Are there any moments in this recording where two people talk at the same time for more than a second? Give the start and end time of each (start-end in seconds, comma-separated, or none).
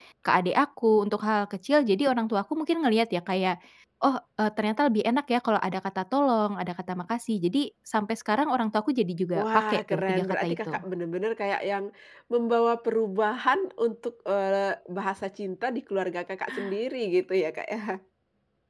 9.3-10.8